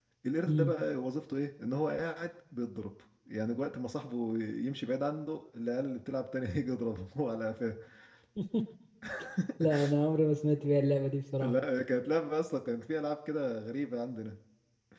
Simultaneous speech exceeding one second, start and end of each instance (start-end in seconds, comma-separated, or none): none